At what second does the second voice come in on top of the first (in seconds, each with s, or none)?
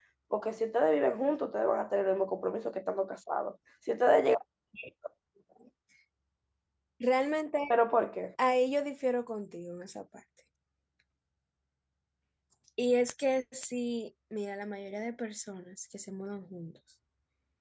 none